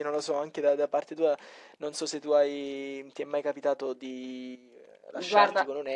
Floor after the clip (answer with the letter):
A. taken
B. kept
B